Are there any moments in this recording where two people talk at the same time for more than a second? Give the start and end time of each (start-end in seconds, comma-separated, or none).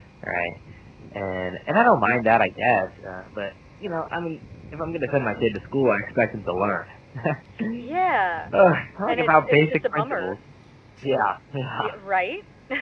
9.1-10.4